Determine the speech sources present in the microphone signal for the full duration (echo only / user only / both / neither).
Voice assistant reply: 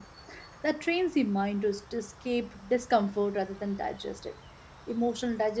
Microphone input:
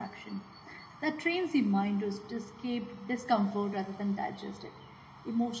echo only